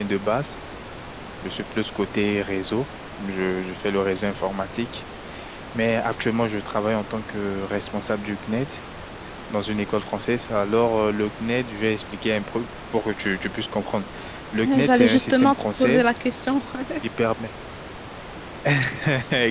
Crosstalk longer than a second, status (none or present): present